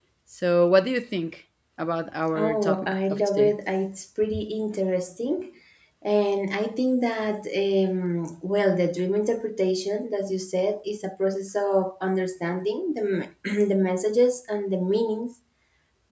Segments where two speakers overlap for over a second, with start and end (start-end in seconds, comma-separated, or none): 2.4-3.6